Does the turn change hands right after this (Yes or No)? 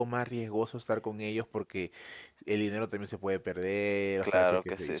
Yes